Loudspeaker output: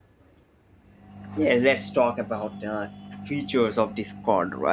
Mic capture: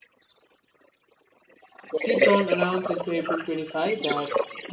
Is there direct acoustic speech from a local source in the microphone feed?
Yes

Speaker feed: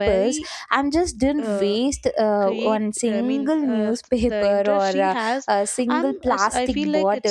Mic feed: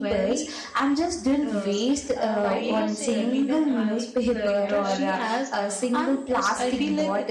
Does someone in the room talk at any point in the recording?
Yes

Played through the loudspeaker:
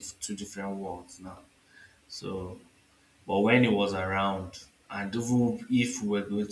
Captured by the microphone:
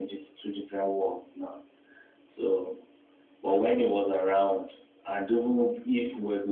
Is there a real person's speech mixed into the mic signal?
No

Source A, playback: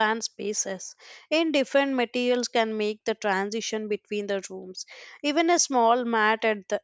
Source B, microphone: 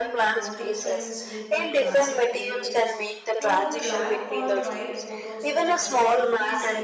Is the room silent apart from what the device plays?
No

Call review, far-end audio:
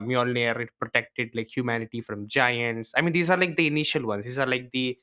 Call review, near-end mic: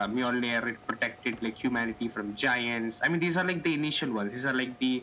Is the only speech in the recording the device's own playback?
Yes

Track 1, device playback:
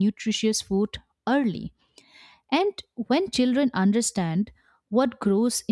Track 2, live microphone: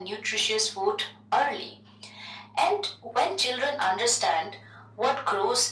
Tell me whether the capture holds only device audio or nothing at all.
Yes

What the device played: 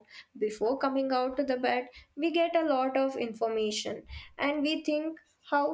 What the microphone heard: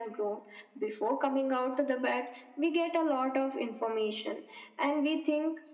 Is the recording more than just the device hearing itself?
No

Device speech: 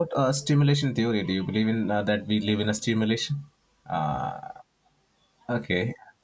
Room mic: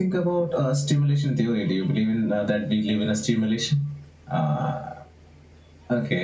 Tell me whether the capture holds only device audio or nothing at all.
Yes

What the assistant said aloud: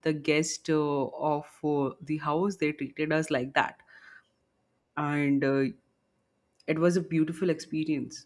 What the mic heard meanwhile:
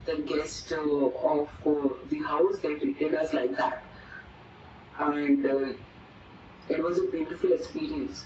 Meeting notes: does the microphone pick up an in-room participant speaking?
No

